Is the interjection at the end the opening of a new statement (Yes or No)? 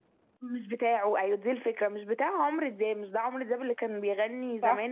No